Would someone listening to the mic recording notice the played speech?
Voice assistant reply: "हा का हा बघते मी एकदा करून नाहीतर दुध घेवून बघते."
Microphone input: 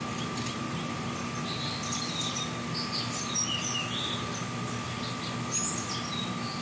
No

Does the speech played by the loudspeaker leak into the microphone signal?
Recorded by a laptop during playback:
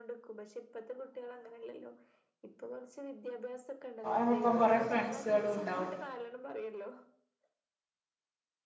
Yes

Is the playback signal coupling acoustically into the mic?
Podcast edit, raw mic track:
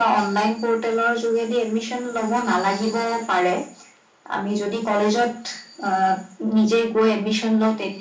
Yes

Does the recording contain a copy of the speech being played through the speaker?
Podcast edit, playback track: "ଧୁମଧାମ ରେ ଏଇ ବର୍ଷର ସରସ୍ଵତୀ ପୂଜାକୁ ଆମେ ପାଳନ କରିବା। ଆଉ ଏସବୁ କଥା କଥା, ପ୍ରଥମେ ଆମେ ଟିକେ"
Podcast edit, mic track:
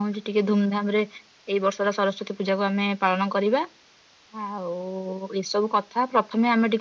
Yes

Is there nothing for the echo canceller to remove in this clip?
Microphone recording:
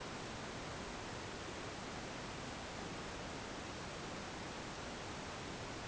Yes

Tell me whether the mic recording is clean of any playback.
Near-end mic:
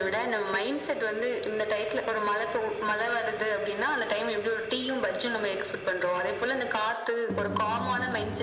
No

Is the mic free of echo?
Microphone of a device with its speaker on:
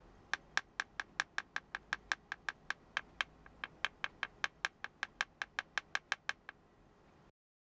Yes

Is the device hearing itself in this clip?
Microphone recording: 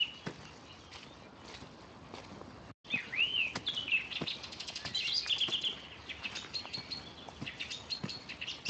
No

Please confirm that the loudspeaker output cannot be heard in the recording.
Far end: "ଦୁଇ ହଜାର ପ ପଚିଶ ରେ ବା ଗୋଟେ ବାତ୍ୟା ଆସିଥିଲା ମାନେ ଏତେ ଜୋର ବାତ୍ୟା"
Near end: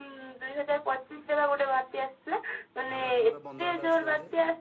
No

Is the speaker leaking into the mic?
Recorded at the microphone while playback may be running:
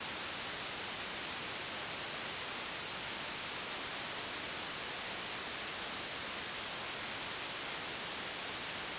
No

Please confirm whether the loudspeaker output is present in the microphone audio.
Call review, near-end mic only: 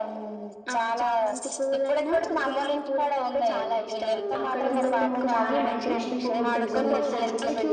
Yes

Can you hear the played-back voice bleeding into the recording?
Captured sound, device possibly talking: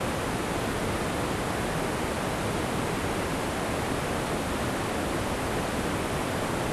No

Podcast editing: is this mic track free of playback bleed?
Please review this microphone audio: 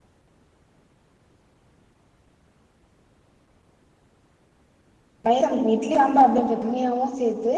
Yes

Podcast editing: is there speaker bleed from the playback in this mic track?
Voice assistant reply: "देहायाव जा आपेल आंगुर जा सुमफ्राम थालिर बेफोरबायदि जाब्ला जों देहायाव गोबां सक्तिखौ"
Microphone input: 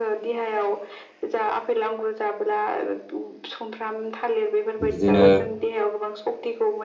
Yes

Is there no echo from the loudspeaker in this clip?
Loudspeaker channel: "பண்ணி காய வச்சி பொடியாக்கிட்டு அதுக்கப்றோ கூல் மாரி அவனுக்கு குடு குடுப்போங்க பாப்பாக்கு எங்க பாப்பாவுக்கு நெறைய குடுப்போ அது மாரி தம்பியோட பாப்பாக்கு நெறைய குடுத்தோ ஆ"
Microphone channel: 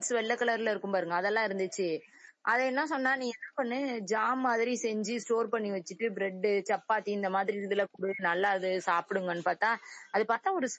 Yes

